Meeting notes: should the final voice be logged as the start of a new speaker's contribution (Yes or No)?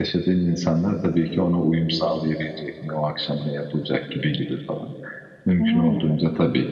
No